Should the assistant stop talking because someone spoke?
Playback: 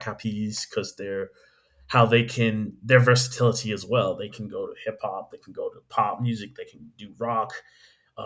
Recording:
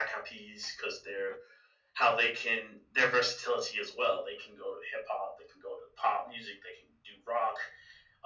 No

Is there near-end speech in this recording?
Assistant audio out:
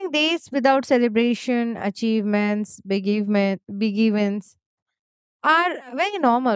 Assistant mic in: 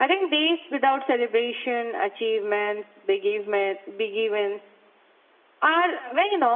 No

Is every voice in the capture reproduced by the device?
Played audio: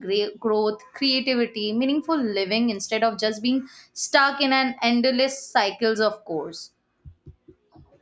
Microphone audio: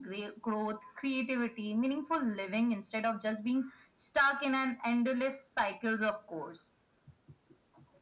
Yes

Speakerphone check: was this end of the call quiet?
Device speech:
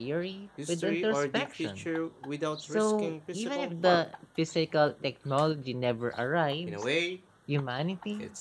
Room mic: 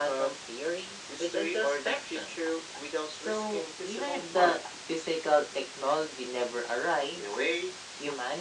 Yes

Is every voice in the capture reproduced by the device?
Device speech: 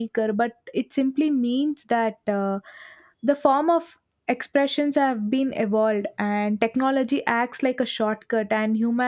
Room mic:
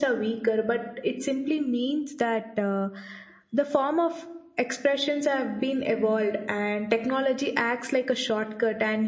Yes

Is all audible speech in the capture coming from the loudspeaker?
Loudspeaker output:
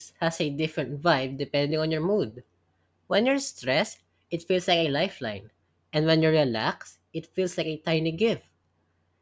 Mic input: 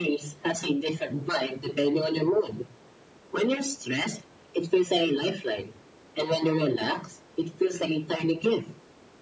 Yes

